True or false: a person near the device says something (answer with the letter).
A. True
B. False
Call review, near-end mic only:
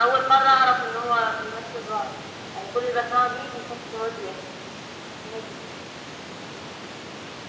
B